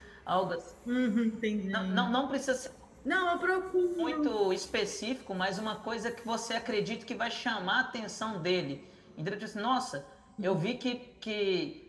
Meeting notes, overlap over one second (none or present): none